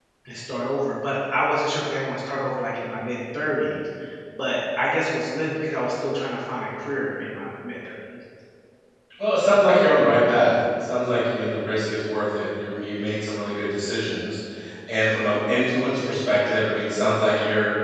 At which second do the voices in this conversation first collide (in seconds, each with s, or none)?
none